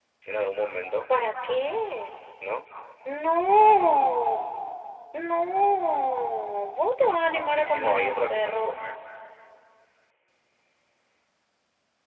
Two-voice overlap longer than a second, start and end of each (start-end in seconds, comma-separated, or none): 7.5-8.8